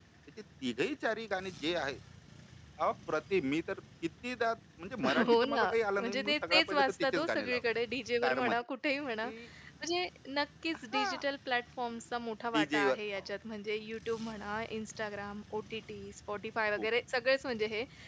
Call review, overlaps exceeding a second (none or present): present